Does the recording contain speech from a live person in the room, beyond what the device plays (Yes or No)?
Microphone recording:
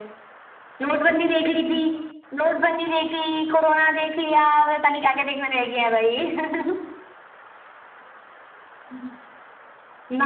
No